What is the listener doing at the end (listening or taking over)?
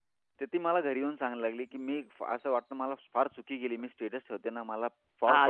taking over